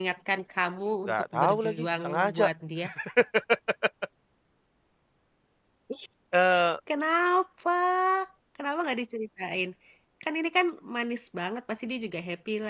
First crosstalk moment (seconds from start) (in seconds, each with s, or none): 1.1 s